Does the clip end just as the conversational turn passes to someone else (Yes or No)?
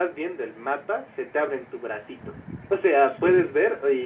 No